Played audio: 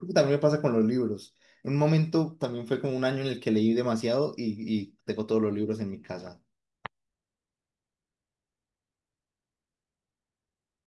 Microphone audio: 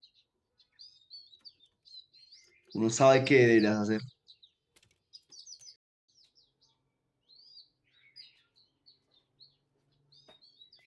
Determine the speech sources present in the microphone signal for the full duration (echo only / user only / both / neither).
user only